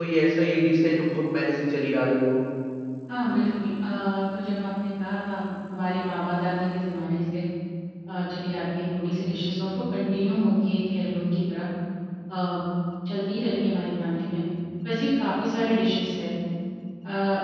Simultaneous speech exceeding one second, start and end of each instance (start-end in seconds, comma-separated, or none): none